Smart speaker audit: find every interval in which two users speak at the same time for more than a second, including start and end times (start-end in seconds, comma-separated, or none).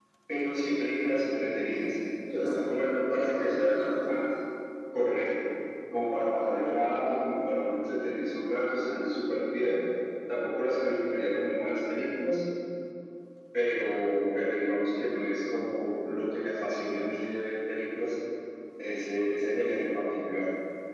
2.4-4.2